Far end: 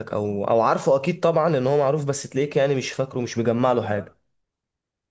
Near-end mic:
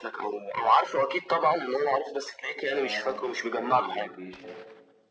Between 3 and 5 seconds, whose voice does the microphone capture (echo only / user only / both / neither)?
both